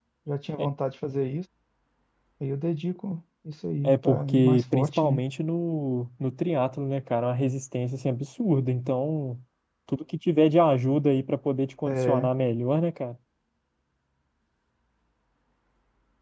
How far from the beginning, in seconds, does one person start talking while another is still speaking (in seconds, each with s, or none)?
3.8 s